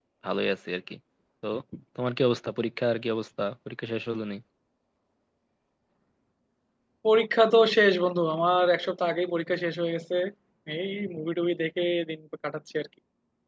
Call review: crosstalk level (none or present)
none